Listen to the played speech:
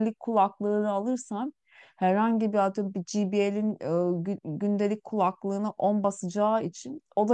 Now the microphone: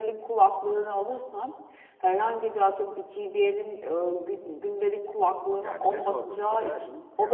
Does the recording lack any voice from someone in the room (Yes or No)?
No